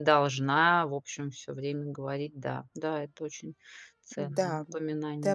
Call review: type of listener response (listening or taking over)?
taking over